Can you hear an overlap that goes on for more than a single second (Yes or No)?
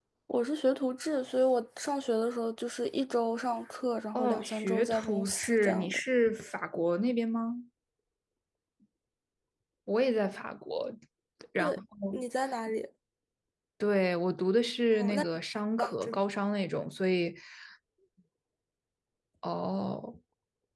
Yes